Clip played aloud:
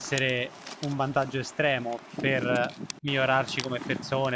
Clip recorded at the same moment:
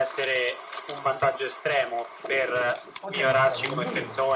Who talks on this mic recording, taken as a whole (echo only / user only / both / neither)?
both